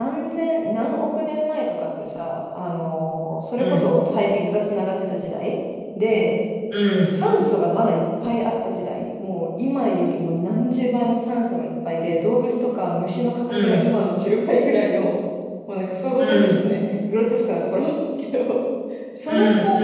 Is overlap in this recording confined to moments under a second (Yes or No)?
Yes